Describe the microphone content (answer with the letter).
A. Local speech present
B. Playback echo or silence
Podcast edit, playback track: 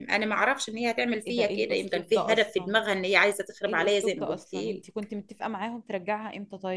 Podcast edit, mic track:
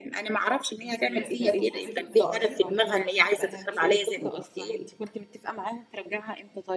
A